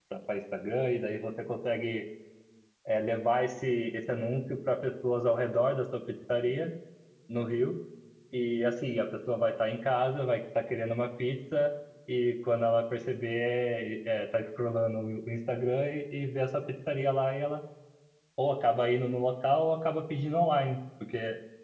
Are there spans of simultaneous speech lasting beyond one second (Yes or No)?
No